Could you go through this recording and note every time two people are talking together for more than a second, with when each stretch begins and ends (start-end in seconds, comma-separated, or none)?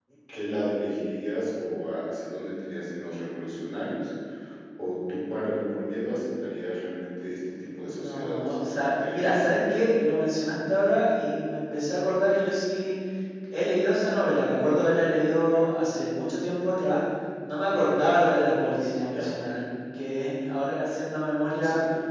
7.8-9.3